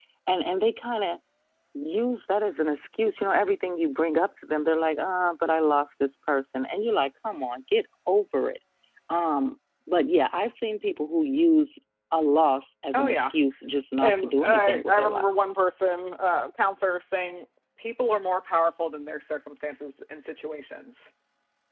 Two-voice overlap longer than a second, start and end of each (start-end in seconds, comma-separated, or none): 14.0-15.3